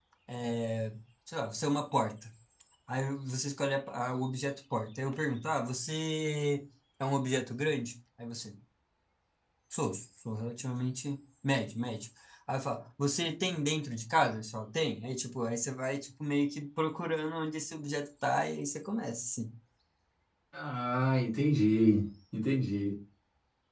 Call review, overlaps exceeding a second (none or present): none